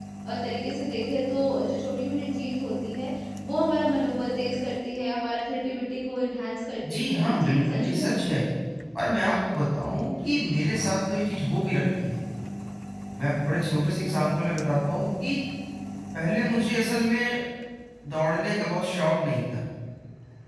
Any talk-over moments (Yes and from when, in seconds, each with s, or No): Yes, from 6.8 s